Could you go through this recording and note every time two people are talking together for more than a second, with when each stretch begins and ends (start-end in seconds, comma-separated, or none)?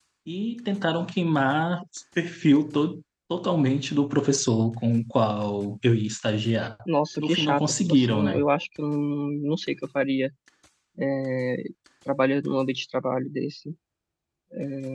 7.2-8.4